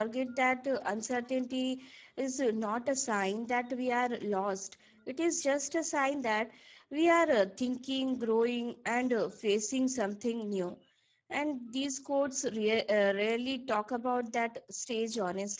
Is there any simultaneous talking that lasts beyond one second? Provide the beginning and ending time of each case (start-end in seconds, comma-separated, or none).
none